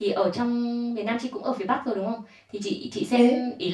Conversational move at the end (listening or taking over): listening